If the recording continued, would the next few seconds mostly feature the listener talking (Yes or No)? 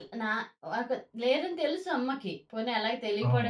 No